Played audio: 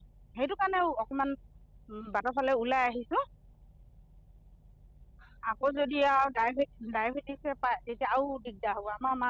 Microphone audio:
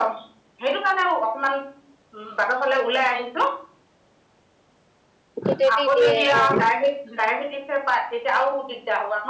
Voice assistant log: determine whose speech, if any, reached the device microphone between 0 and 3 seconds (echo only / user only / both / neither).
echo only